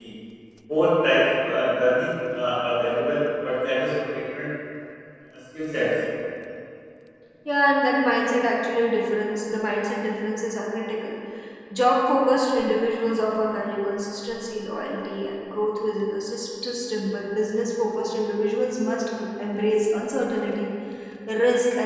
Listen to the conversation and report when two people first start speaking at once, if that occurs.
none

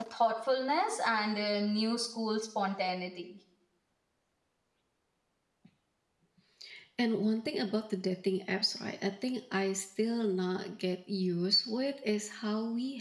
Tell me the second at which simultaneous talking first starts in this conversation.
none

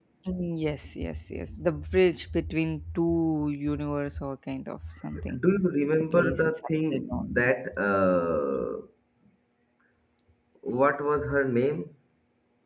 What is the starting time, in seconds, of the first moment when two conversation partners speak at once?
6 s

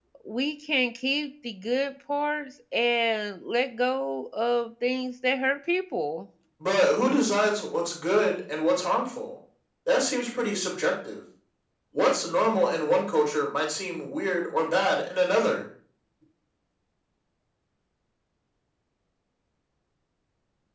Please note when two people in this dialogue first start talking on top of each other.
none

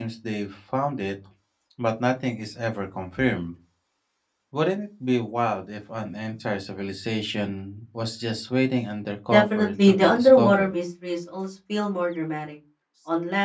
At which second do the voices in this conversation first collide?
9 s

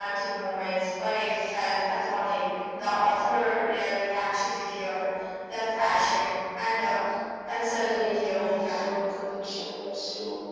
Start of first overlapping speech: 8 s

